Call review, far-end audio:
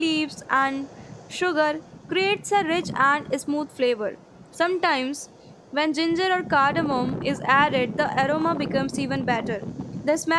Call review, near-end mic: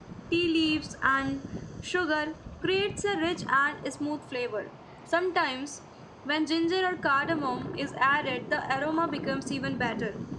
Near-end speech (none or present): none